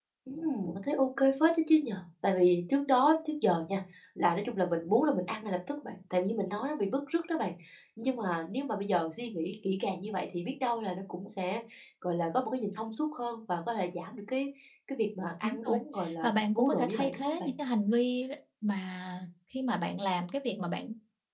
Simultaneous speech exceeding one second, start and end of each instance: 16.2-17.5

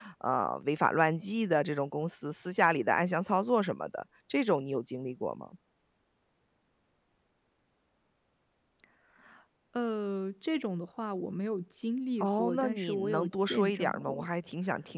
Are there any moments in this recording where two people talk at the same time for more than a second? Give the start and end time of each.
12.2-14.3

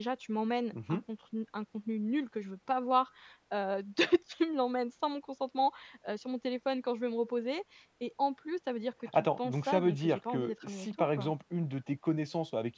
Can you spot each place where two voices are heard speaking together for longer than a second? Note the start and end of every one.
9.1-11.3

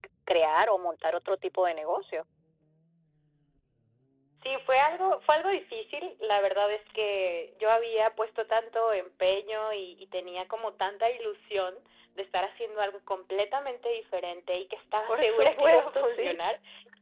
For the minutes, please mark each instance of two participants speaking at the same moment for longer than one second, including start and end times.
15.1-16.4

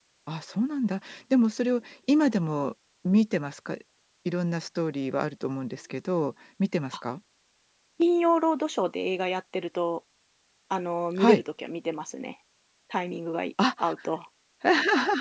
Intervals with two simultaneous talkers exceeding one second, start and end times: none

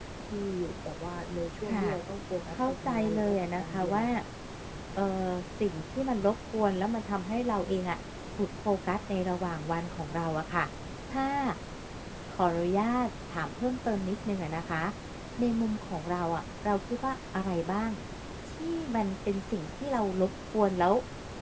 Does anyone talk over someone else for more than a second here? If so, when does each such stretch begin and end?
2.5-4.0

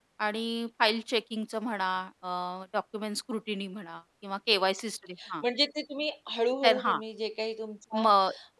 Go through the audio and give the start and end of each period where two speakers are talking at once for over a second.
none

